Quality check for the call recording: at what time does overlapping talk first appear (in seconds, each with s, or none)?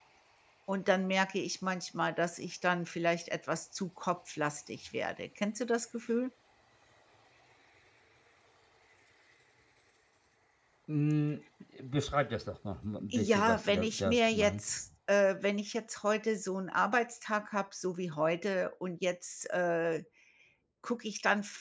13.1 s